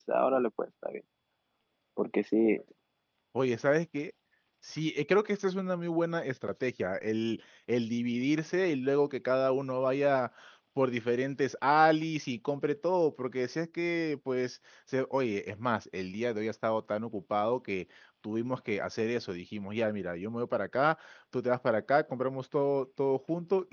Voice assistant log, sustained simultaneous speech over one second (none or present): none